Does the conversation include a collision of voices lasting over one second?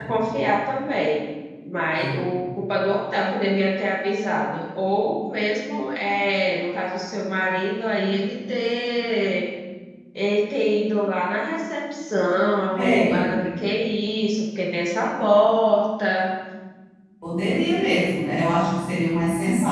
No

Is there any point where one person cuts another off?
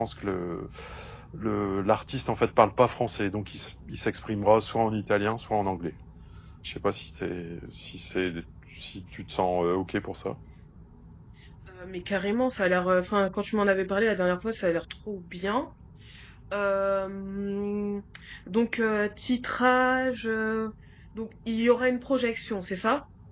No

